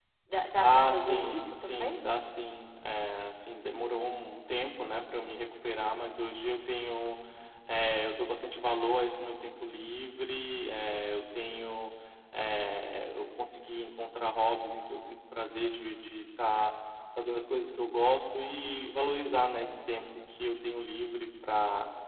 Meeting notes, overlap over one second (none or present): present